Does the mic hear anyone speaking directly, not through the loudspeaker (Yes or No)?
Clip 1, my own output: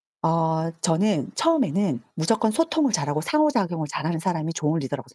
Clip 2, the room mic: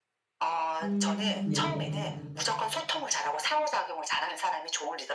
Yes